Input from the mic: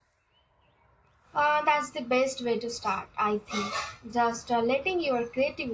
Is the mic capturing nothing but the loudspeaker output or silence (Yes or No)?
No